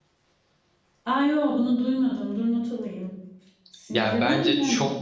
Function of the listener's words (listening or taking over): taking over